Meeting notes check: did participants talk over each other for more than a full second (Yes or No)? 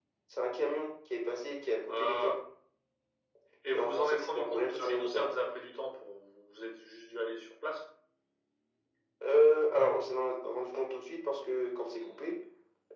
Yes